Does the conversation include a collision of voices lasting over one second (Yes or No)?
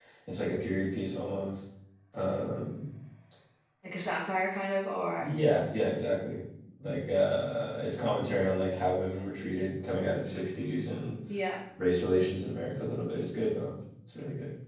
No